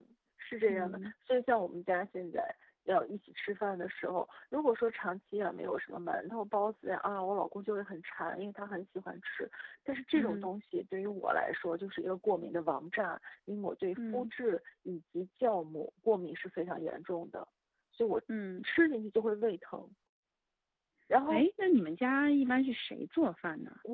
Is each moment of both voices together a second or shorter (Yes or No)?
Yes